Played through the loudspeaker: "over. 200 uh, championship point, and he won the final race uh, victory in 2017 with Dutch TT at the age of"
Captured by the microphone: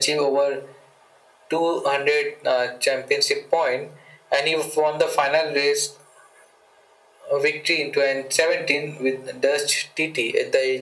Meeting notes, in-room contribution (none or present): none